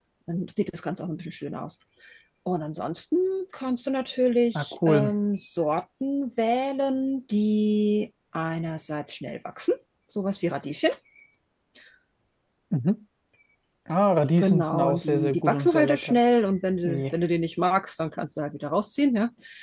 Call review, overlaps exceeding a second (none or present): present